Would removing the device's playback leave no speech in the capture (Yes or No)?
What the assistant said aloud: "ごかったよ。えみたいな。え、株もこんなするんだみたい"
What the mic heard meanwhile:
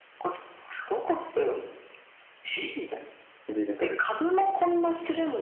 No